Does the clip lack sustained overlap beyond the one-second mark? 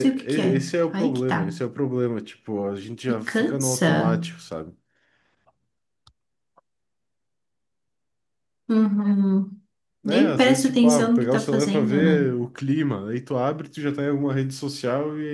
No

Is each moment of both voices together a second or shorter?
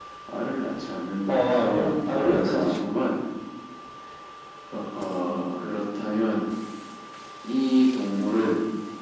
No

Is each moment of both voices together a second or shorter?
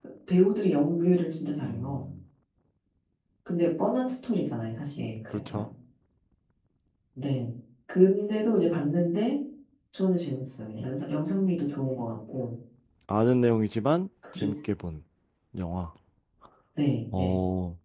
Yes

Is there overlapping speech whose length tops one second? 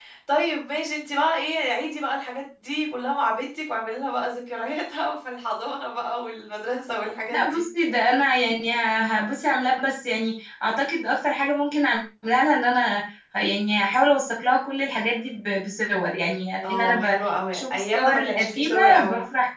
Yes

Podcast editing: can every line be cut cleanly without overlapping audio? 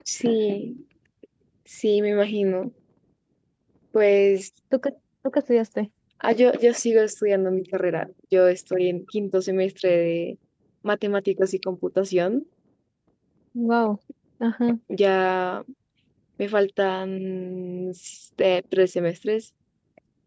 Yes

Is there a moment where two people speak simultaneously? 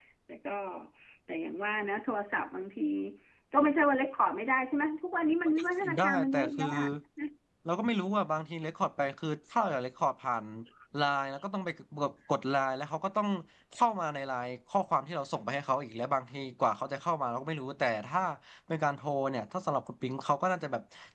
Yes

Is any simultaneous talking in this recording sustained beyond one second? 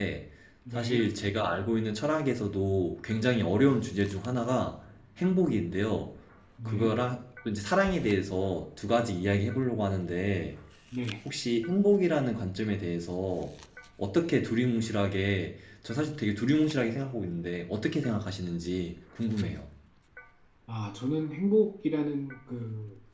No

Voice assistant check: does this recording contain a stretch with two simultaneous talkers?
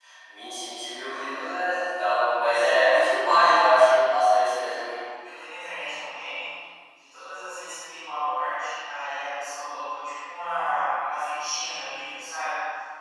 No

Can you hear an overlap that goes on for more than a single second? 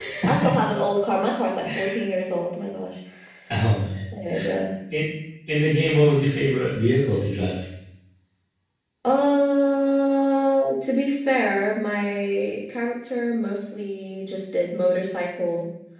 No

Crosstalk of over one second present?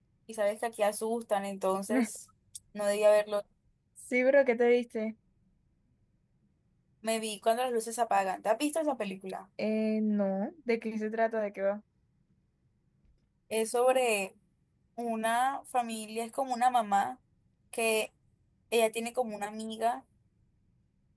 No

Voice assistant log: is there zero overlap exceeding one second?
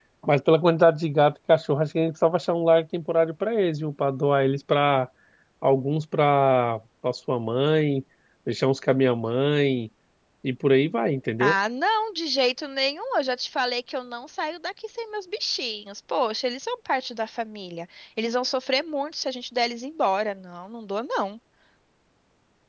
Yes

